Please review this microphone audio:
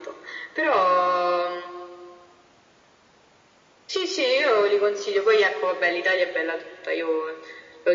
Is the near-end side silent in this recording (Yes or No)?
Yes